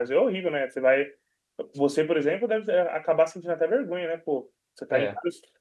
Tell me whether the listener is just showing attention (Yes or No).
Yes